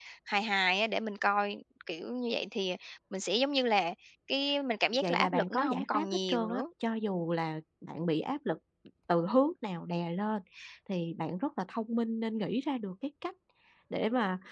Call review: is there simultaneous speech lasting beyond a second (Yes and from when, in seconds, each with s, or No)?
Yes, from 4.9 s